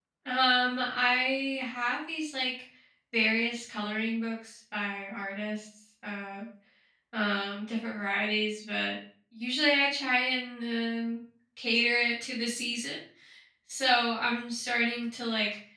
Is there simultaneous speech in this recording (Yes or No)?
No